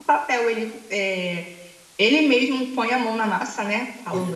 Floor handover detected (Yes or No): Yes